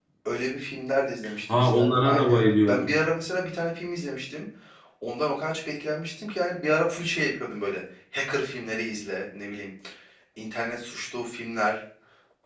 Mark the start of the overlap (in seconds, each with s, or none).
1.5 s